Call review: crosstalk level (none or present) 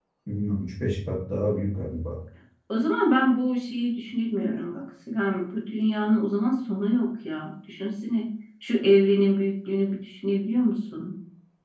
none